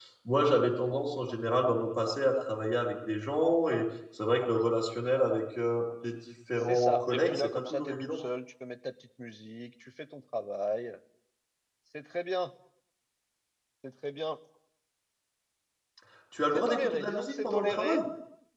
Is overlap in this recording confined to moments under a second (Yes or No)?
No